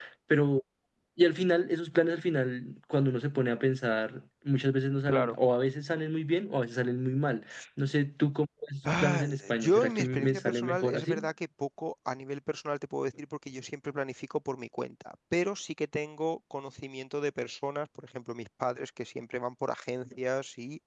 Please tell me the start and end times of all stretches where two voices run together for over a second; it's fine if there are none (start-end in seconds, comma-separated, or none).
8.9-11.3